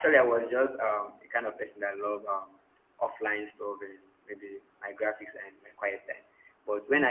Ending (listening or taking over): listening